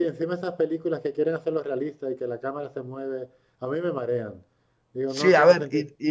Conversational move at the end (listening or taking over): taking over